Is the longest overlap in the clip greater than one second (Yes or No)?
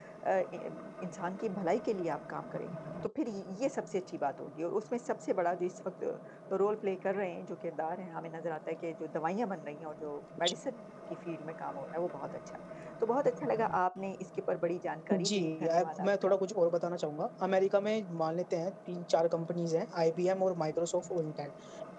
Yes